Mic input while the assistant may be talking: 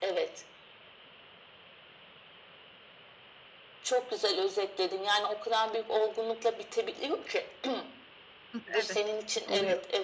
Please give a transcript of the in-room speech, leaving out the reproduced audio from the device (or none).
Hıh. Evet oluyor.